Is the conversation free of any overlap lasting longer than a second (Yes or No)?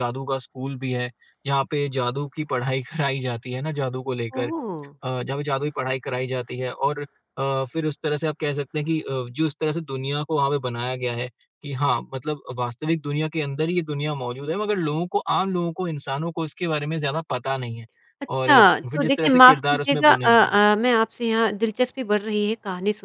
No